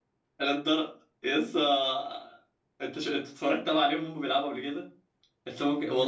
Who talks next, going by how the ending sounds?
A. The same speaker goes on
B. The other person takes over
A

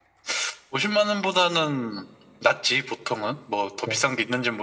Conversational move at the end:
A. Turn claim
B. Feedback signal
B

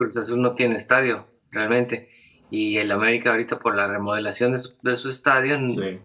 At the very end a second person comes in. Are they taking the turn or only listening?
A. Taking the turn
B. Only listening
B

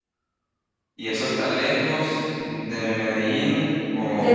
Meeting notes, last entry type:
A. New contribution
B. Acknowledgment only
A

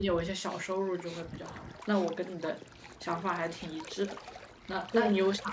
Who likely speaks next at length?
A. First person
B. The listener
A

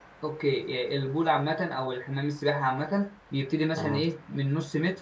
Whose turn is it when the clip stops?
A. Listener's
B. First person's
B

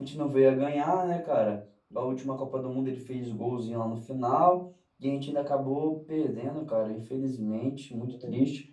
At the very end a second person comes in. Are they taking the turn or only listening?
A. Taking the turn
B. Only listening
B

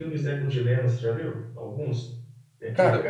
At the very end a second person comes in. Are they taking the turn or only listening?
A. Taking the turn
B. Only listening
B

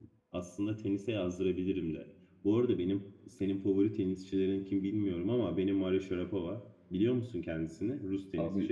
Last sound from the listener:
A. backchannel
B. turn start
B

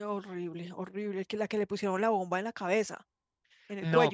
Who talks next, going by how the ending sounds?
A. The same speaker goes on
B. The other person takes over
B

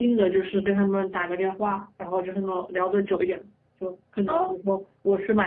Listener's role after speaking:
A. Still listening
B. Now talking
A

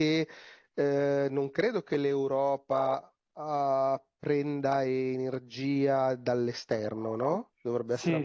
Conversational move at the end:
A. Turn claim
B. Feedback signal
A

